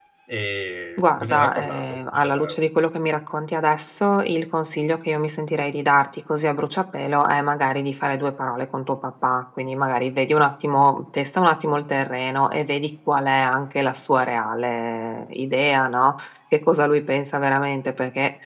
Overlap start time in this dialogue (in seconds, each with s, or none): 1.0 s